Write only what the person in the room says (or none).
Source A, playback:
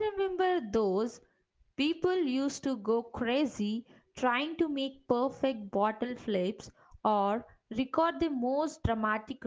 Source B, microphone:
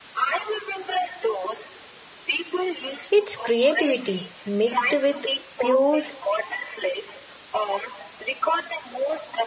it's creativity mixed with pure